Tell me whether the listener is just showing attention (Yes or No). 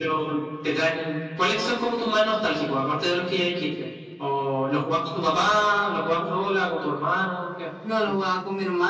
No